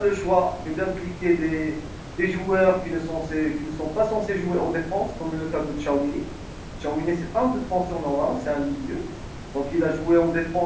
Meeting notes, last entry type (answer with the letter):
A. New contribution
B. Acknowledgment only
B